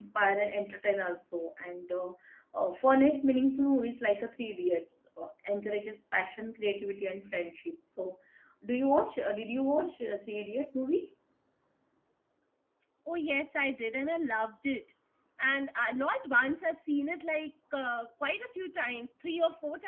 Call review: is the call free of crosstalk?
Yes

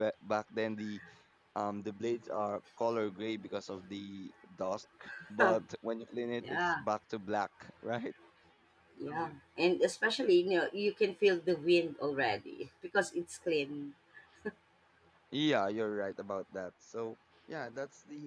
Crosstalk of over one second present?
No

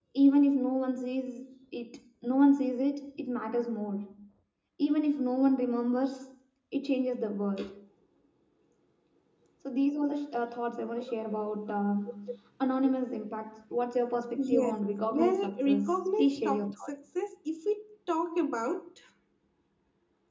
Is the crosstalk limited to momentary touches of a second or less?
No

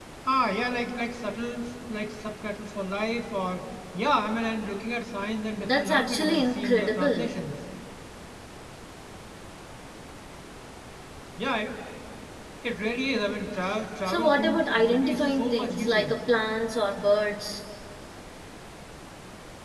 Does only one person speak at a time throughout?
No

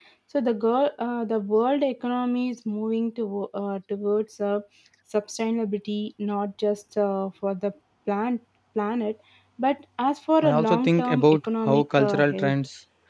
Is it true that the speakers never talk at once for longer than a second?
No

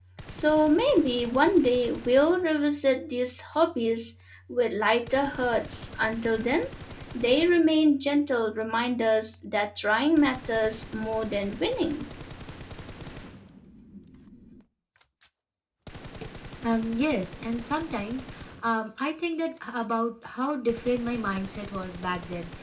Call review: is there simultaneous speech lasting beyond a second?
No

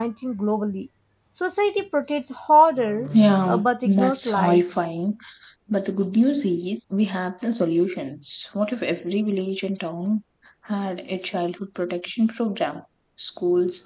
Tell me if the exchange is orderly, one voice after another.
No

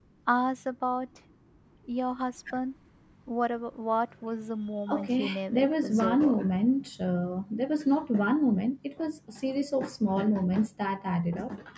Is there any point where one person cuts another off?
Yes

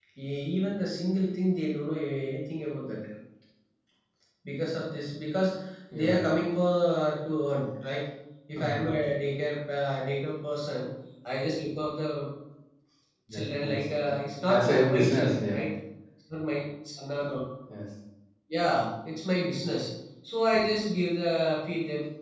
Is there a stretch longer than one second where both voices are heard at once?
Yes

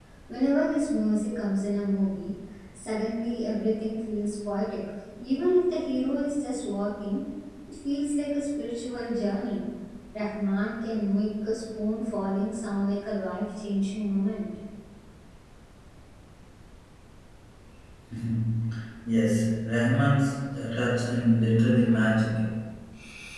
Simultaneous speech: No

